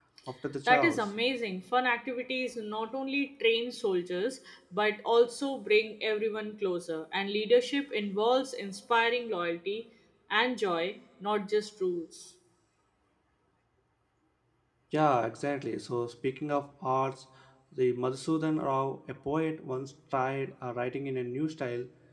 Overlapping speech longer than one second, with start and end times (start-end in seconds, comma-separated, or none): none